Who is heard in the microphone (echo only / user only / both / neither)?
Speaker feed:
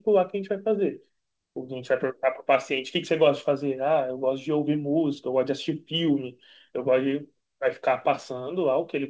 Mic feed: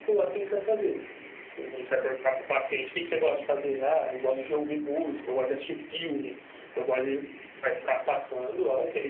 echo only